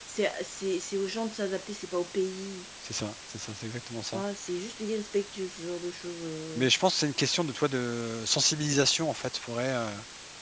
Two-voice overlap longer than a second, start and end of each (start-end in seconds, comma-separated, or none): none